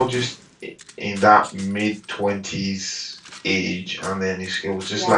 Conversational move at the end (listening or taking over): listening